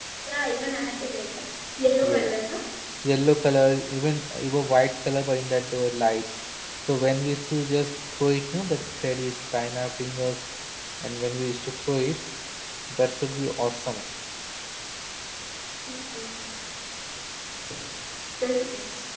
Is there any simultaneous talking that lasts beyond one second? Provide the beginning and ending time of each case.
none

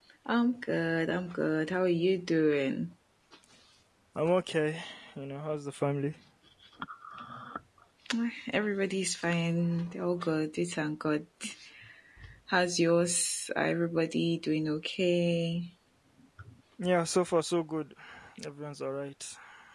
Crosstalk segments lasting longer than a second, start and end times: none

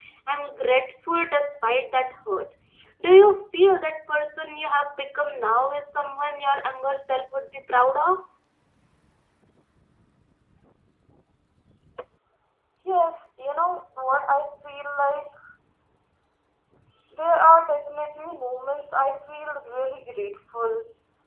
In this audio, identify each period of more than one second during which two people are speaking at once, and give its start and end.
none

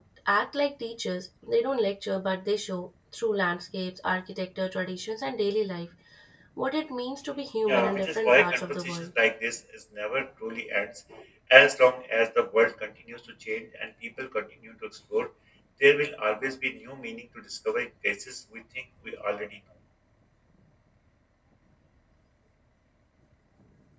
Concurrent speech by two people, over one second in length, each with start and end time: 7.7-9.1

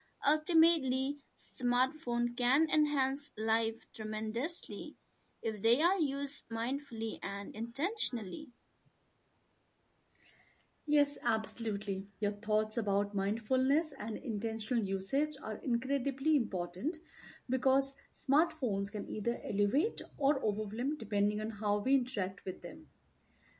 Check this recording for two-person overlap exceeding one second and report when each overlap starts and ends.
none

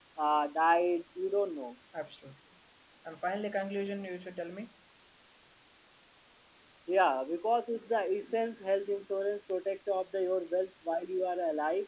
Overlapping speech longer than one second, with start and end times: none

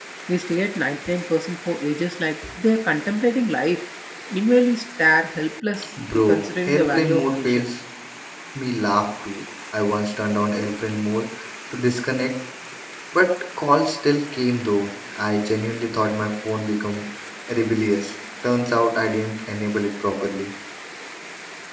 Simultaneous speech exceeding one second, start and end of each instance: 6.1-7.7

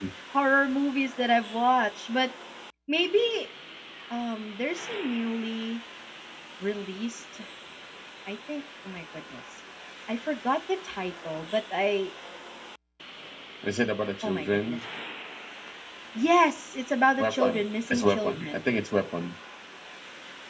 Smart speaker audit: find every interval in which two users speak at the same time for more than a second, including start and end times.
17.2-18.6

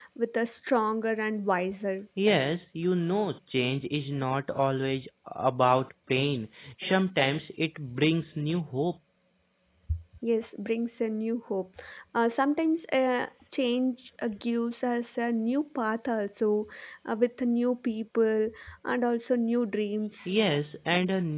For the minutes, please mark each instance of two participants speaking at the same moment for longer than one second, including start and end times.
none

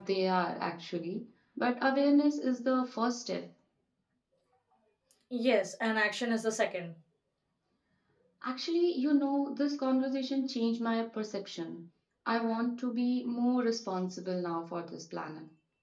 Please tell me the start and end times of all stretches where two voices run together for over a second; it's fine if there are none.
none

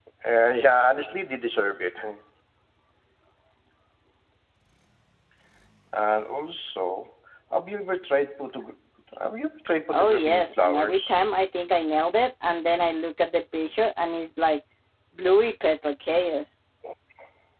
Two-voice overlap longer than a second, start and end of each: 9.9-11.1

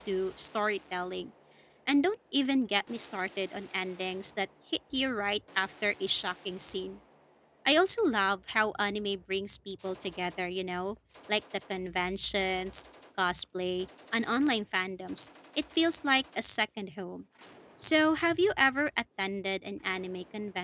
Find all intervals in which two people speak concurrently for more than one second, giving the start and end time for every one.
none

